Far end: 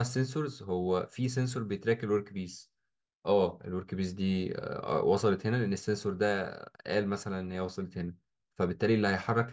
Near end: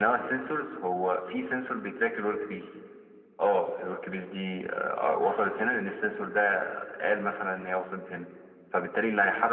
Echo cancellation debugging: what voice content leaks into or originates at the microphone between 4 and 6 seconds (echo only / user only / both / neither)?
echo only